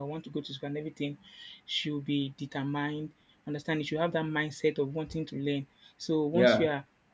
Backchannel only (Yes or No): Yes